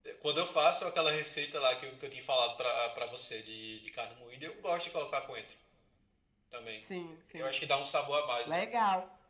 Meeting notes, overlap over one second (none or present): none